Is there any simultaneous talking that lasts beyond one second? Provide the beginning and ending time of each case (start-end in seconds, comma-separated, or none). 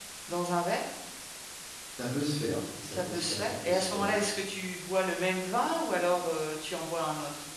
2.9-4.2